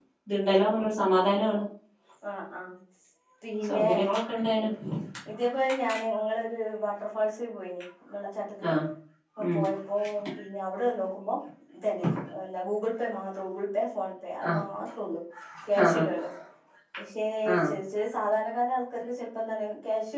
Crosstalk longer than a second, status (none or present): none